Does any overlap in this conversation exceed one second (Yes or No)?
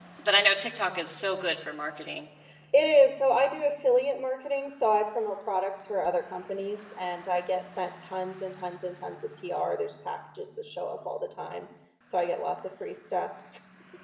No